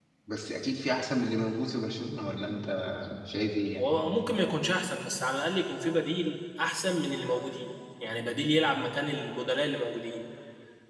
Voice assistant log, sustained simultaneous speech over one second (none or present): none